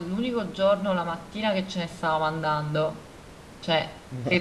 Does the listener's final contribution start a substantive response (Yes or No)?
No